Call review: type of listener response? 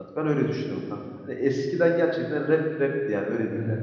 taking over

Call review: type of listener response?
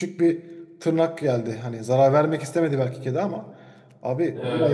listening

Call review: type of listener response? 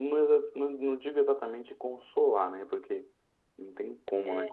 listening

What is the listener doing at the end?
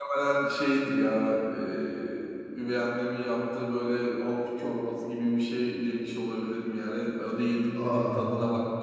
listening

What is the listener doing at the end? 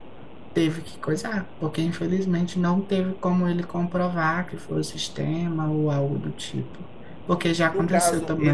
taking over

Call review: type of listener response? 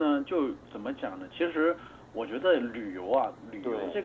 listening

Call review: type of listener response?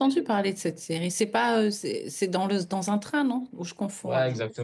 taking over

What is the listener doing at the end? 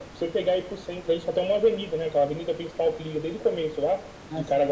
listening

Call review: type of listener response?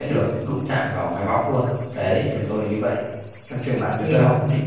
listening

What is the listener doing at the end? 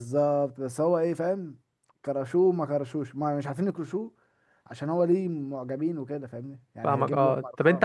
taking over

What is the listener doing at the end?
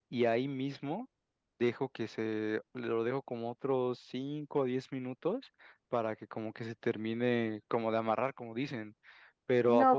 taking over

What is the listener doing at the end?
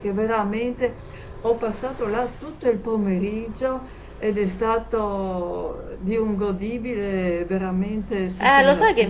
taking over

